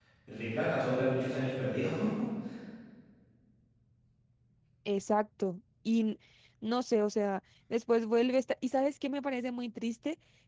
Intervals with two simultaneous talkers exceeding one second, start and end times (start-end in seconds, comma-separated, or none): none